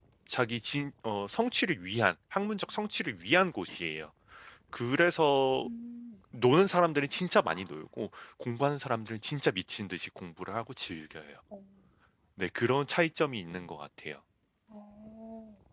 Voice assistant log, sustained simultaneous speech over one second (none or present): none